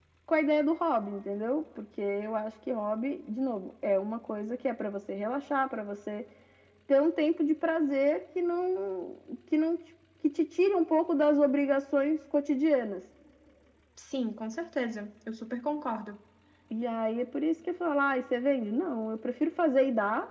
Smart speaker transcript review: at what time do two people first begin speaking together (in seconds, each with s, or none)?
none